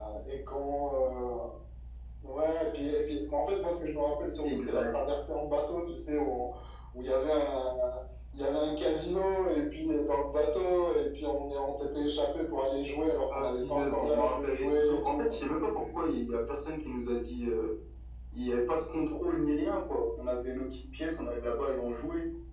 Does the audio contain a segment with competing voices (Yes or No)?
Yes